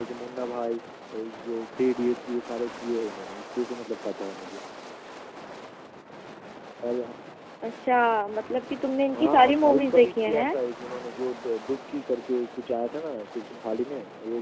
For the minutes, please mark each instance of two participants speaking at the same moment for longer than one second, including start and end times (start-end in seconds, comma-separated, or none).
9.2-10.6